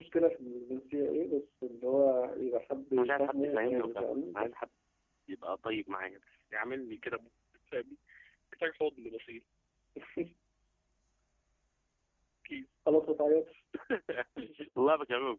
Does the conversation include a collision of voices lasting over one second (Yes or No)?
Yes